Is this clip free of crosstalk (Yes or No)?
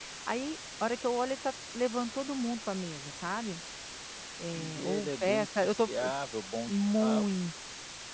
No